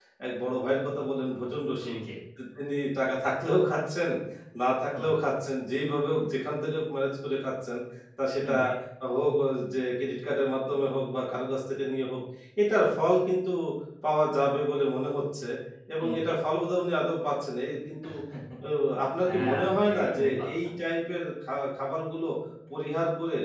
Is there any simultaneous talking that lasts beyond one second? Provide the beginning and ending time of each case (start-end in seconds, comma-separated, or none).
19.2-20.7